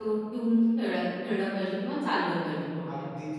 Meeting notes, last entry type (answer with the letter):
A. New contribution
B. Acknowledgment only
A